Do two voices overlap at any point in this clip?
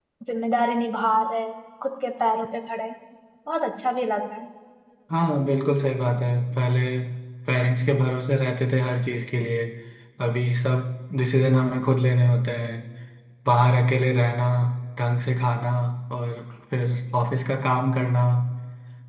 No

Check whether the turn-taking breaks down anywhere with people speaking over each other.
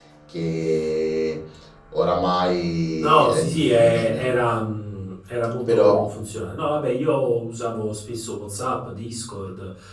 Yes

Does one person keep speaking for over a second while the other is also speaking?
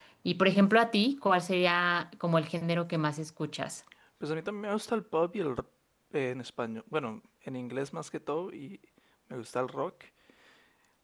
No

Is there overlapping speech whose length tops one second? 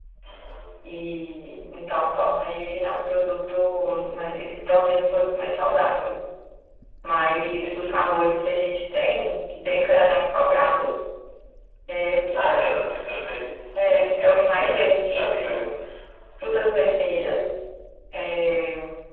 Yes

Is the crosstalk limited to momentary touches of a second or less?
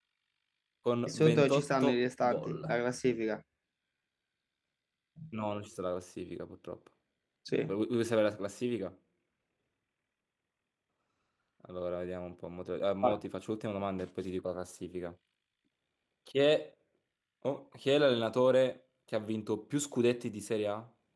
No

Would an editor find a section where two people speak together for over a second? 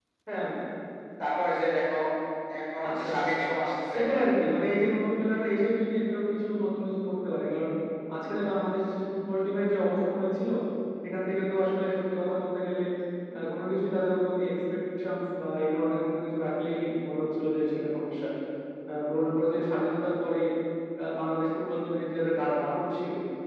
No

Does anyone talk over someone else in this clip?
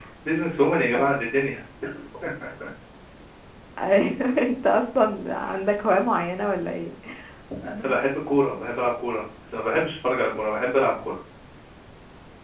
No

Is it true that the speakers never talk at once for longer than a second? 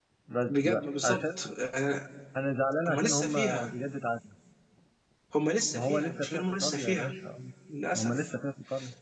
No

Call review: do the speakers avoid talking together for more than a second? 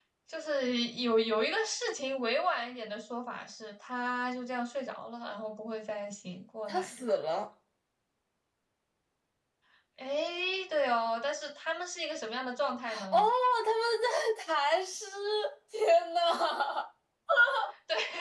Yes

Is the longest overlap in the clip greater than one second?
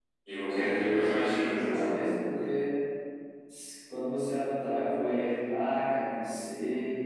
Yes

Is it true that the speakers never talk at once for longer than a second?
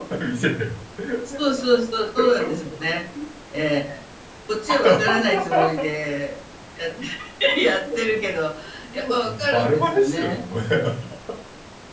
No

